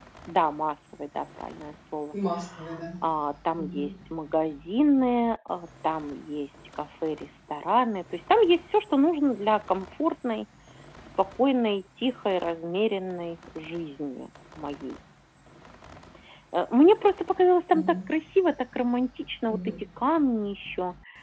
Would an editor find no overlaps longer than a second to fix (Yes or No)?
Yes